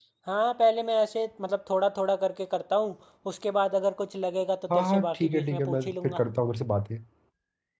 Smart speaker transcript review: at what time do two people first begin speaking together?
5 s

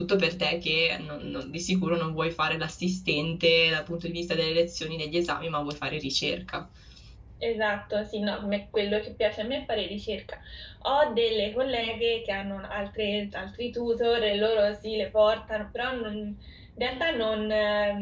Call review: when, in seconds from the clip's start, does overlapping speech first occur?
none

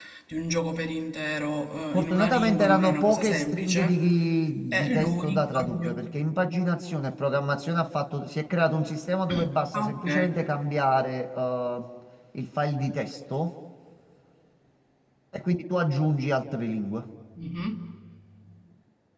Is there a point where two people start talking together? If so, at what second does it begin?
2 s

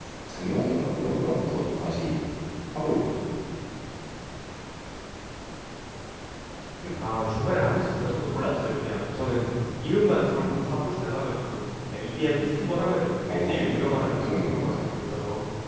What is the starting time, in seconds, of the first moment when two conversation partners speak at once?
13 s

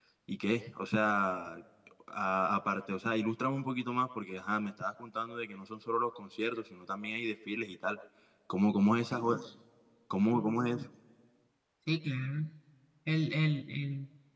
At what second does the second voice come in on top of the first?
none

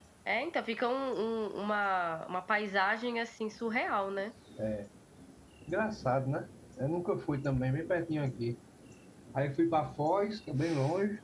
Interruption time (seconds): none

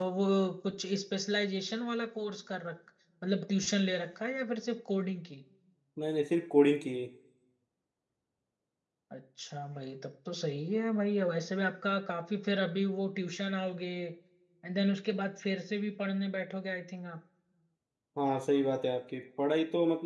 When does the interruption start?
none

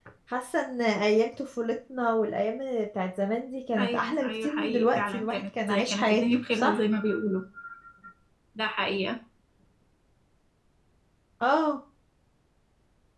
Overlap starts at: 4 s

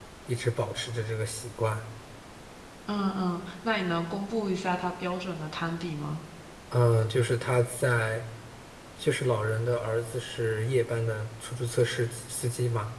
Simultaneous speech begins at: none

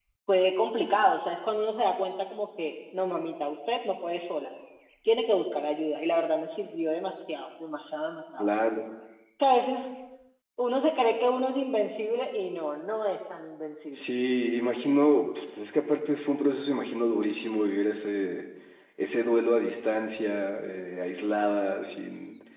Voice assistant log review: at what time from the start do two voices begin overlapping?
none

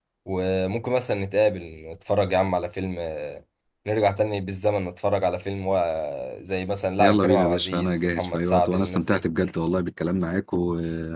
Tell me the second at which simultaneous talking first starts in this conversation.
7 s

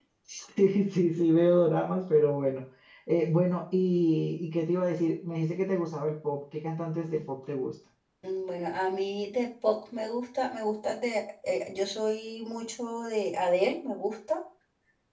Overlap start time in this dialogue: none

